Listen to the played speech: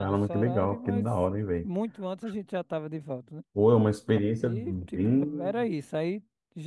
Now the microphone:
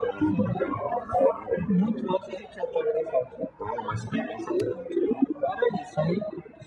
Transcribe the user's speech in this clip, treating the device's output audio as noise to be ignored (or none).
none